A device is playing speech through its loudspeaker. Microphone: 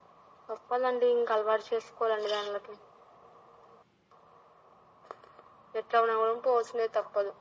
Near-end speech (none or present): none